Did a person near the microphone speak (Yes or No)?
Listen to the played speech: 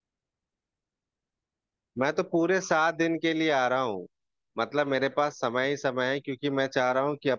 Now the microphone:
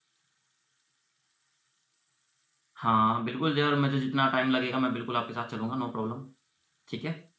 Yes